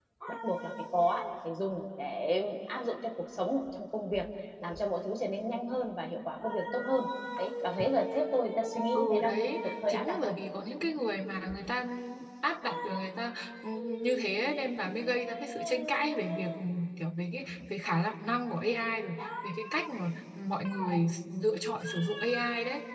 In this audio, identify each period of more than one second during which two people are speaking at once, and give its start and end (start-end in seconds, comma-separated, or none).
9.0-10.3